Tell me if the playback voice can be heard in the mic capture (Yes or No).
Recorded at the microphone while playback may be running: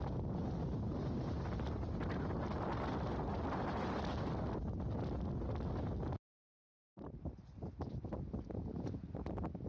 No